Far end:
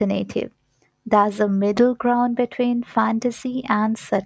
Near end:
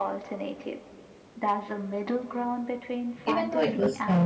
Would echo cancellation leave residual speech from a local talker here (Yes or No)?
Yes